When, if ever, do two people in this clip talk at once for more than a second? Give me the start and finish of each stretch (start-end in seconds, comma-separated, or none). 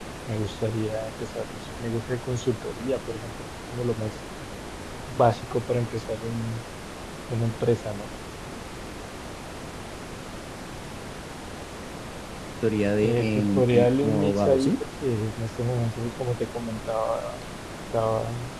13.0-14.7